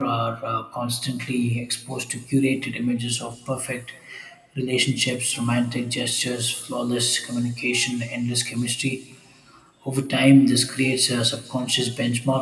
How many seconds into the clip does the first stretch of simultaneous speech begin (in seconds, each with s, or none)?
none